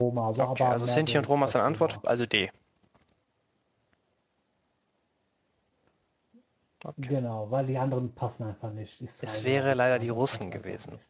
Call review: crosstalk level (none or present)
present